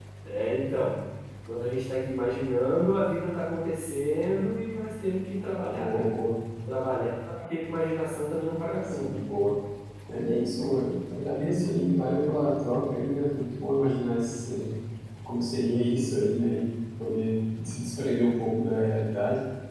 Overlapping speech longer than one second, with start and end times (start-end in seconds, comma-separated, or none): none